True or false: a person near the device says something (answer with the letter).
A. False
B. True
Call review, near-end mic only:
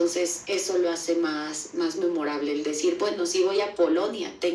A